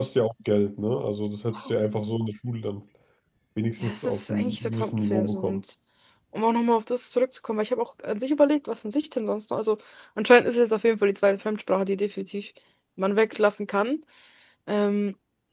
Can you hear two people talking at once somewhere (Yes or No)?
Yes